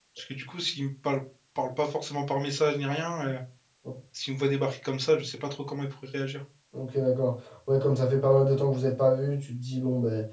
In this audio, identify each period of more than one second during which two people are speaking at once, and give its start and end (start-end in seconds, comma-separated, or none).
none